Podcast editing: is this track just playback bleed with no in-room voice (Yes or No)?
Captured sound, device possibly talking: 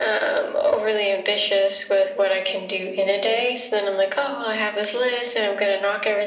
Yes